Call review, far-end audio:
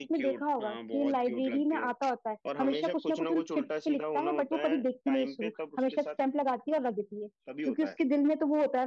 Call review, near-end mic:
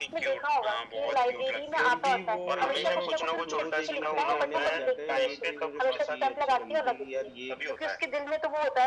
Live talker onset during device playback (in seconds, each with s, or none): 1.1 s